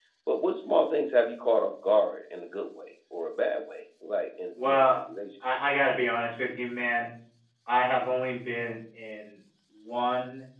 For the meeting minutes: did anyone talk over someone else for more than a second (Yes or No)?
No